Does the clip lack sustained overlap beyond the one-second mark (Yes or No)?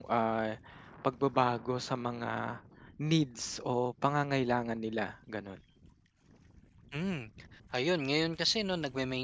Yes